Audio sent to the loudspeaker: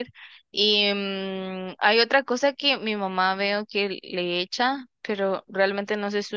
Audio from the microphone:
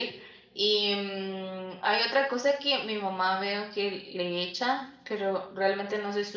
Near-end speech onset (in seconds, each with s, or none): none